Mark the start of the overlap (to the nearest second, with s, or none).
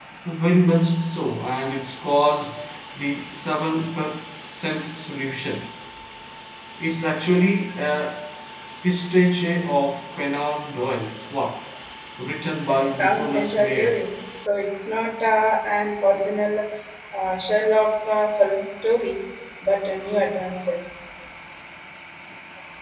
13 s